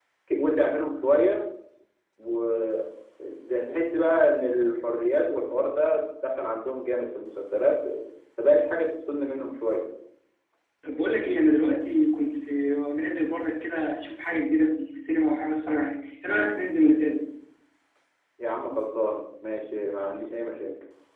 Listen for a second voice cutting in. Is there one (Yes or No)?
No